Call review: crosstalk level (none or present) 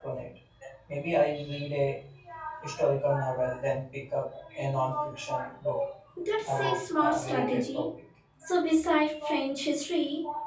present